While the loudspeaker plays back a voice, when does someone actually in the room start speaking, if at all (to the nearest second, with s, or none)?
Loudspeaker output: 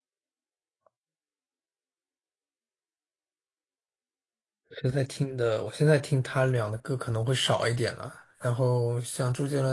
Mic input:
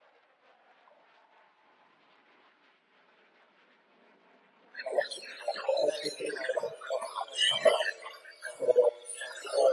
none